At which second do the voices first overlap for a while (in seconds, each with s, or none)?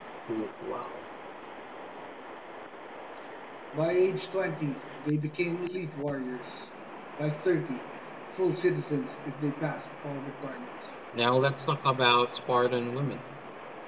none